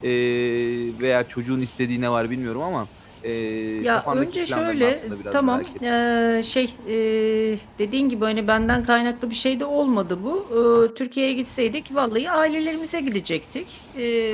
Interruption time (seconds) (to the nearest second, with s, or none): 4 s